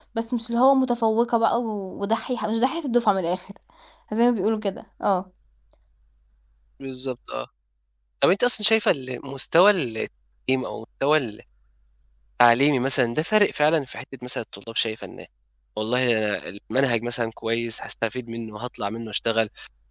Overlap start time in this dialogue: none

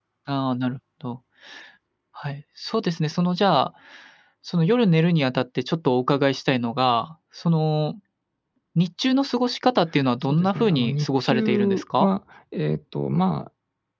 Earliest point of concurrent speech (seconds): 10.3 s

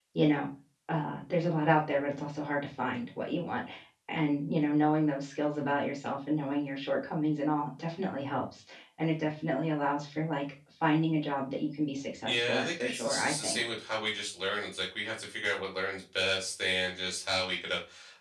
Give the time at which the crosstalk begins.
12.2 s

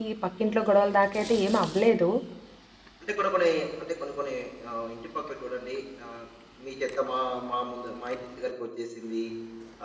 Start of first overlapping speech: none

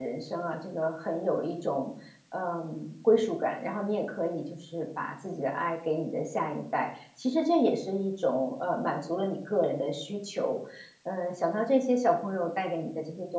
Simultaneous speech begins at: none

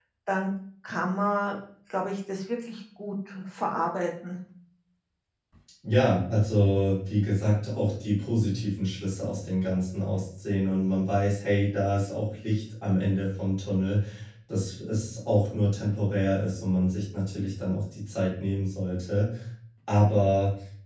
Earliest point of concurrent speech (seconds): none

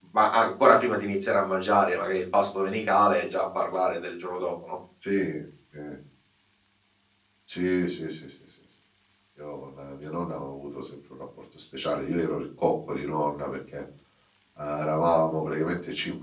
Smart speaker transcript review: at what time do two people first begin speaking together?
none

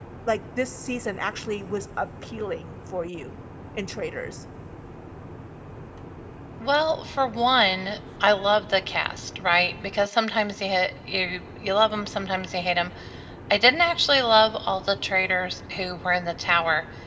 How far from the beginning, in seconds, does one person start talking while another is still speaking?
none

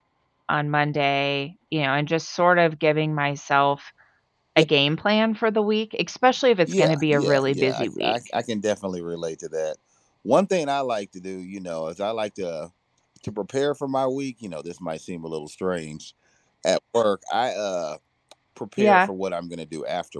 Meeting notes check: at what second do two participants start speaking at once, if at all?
6.7 s

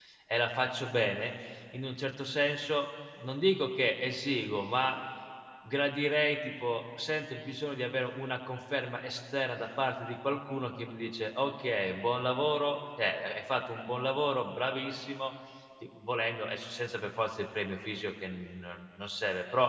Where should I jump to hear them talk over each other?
none

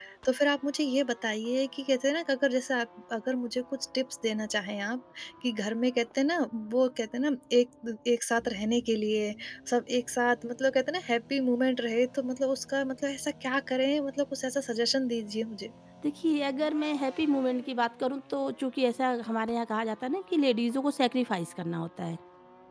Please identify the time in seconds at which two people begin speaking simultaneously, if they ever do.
none

